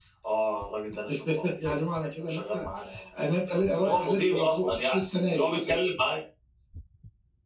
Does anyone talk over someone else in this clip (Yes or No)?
Yes